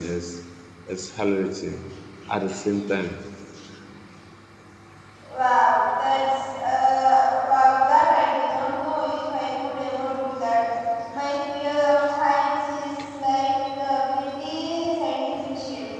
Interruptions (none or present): none